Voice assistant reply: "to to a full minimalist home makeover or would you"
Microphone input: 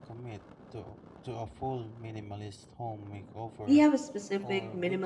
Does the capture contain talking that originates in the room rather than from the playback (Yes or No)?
Yes